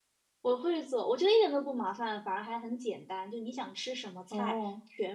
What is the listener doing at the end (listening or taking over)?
listening